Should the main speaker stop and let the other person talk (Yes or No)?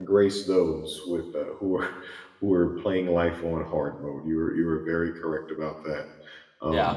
No